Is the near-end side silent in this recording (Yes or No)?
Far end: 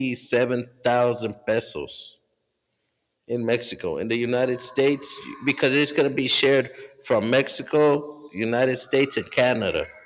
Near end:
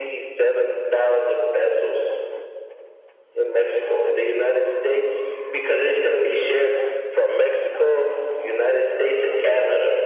Yes